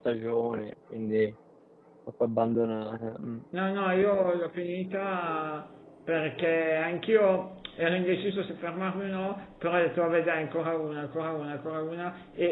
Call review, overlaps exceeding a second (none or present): none